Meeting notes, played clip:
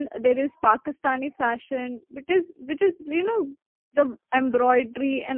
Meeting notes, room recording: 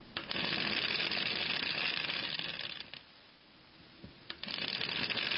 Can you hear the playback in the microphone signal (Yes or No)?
No